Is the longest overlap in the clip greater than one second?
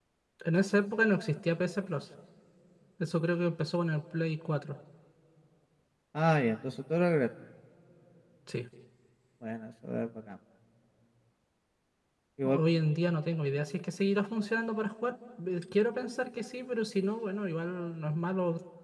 No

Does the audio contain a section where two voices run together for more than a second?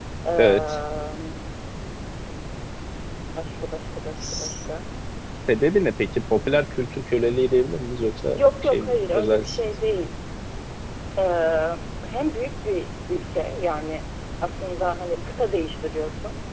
Yes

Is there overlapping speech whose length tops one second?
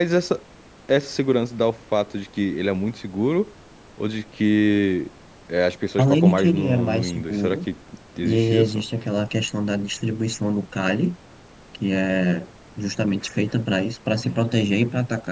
Yes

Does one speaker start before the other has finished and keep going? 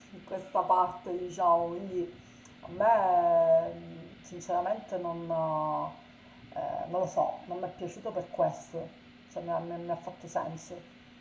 No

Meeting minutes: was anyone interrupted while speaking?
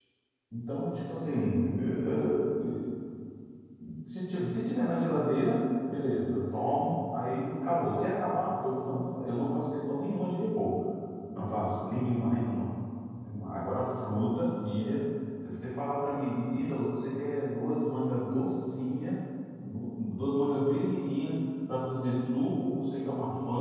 No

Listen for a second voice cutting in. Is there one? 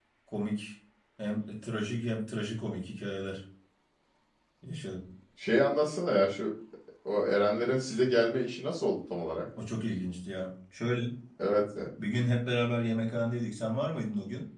No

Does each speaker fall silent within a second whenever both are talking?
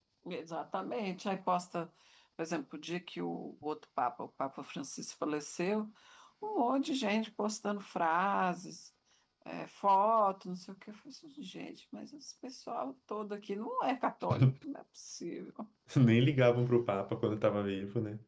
Yes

